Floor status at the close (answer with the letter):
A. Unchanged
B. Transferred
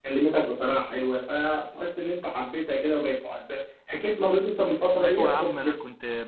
B